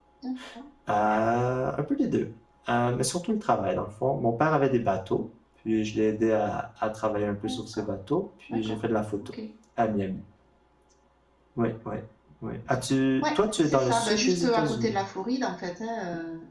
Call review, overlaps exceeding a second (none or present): present